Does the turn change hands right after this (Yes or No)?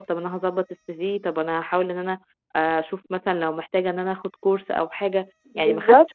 No